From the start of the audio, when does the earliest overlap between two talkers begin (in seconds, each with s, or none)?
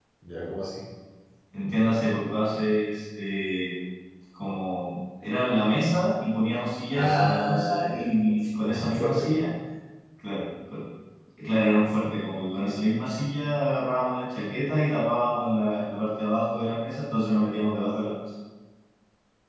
6.9 s